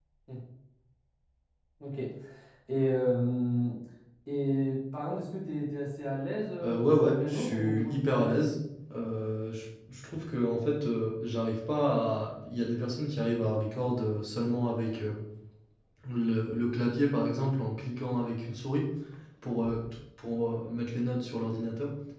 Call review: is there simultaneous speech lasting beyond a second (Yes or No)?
Yes